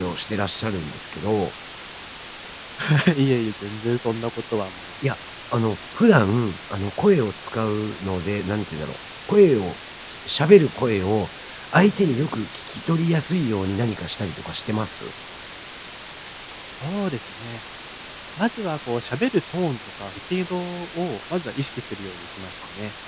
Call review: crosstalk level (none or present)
none